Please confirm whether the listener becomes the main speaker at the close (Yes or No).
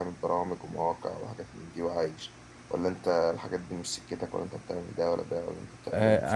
Yes